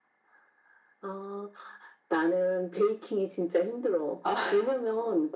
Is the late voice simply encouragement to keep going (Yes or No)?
Yes